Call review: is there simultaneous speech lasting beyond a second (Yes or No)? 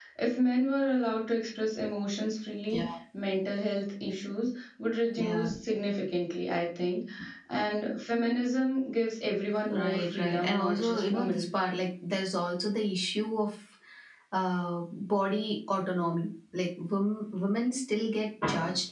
Yes